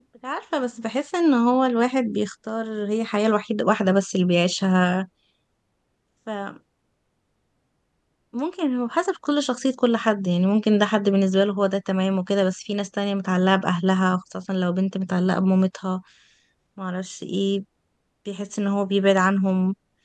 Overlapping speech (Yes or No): No